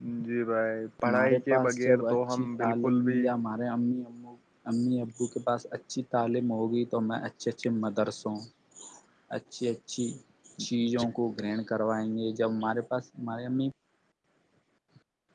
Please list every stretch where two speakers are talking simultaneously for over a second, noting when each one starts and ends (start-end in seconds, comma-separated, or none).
1.0-3.2